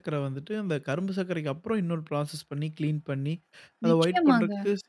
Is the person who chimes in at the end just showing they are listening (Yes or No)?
Yes